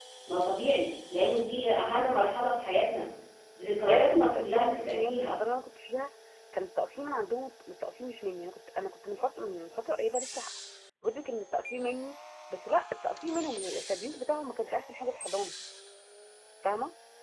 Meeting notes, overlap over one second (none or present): present